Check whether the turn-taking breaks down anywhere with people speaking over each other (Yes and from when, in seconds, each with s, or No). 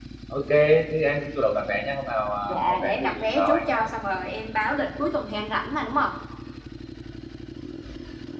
Yes, from 2.5 s